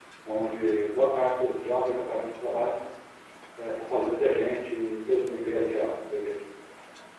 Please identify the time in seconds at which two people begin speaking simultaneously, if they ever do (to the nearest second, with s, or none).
none